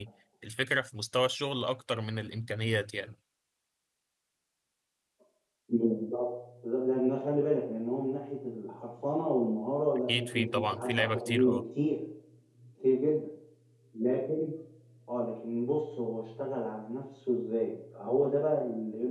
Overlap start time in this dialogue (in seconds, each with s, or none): 10.1 s